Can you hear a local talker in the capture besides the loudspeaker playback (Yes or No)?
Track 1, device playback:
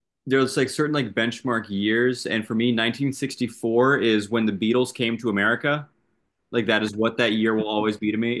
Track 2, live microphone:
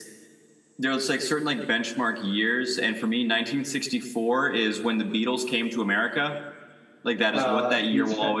Yes